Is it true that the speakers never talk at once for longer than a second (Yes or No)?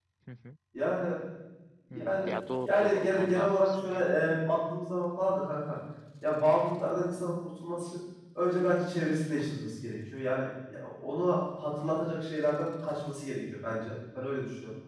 No